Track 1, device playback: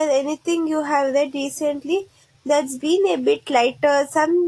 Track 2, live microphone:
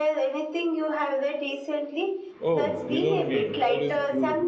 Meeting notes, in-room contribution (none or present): present